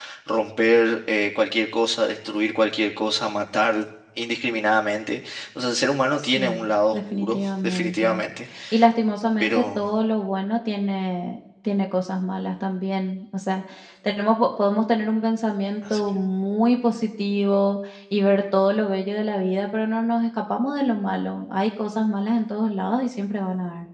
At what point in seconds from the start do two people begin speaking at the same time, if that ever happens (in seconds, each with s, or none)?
6.2 s